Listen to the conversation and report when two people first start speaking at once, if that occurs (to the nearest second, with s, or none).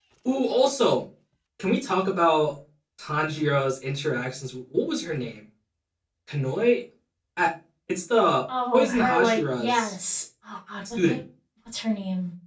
9 s